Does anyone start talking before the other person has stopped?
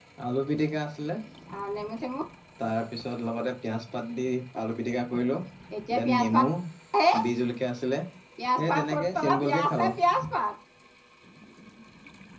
Yes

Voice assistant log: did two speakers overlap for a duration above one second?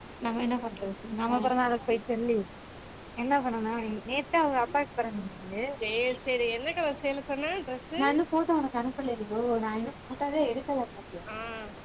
No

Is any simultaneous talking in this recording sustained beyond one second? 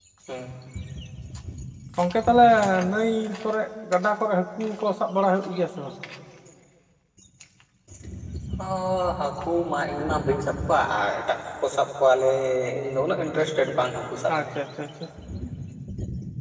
No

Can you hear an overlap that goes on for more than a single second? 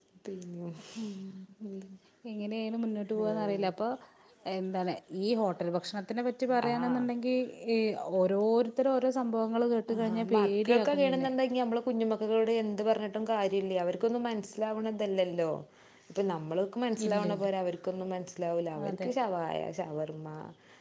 Yes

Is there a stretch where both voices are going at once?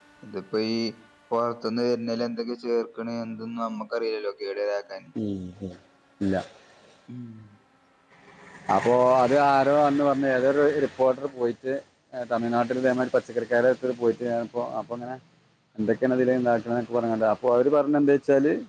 No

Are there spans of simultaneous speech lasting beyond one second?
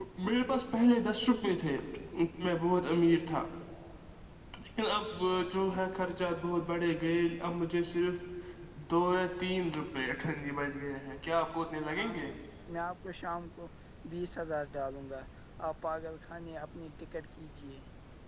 No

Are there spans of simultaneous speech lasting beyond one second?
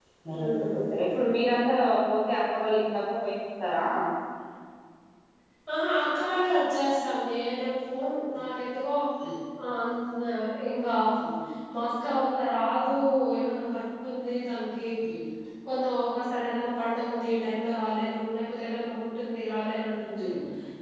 No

